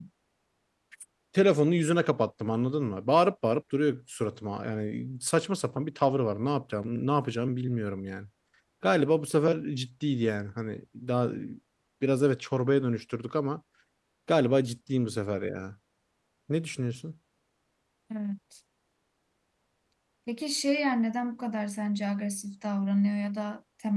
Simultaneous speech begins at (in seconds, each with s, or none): none